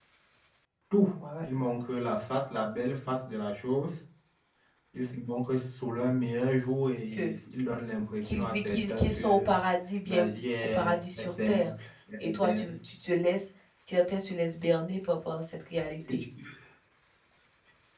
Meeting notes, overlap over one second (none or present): present